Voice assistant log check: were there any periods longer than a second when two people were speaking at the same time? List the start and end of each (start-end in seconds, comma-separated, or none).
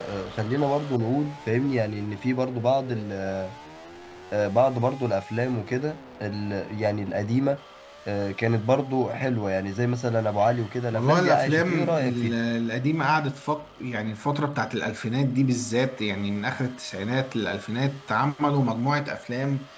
10.9-12.3